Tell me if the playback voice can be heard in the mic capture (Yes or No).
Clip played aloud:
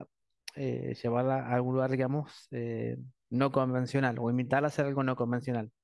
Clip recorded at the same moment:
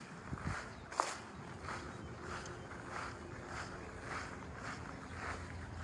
No